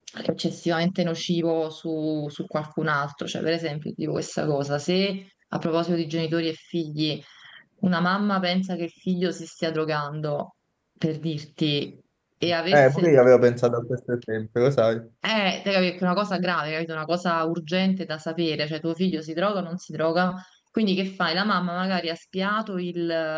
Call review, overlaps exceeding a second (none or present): none